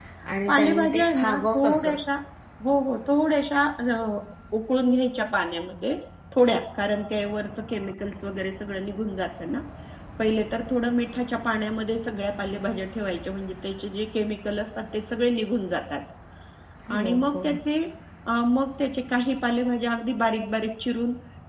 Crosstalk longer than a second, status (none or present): present